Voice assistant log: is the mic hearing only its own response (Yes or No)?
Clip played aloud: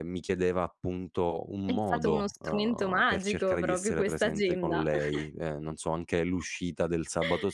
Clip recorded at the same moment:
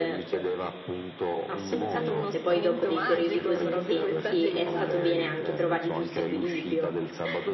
No